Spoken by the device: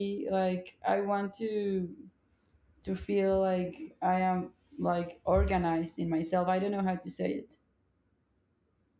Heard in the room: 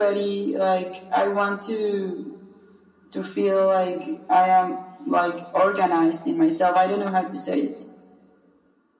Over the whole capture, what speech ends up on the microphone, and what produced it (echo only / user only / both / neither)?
echo only